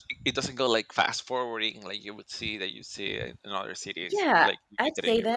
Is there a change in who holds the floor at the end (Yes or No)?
Yes